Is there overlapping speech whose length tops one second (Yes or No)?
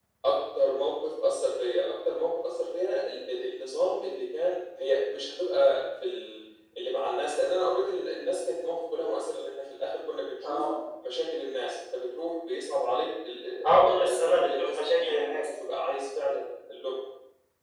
Yes